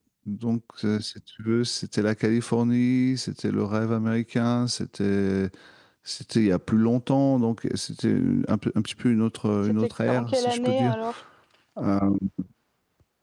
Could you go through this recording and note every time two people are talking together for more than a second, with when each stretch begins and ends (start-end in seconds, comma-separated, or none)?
9.7-10.9